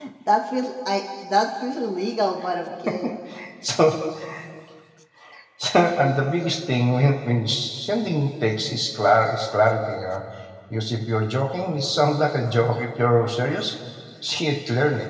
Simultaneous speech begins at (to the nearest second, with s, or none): none